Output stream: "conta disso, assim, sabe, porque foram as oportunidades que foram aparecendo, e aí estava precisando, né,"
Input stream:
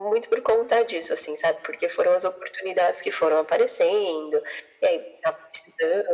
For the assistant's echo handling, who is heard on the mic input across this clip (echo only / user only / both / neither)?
echo only